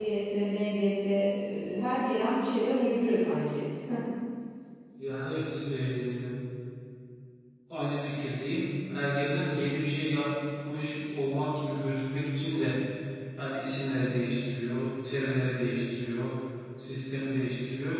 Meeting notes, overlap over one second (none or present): none